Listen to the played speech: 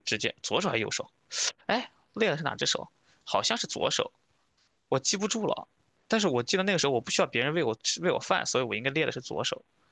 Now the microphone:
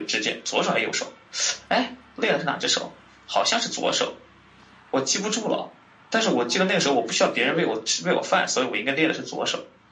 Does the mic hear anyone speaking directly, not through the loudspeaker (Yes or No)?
Yes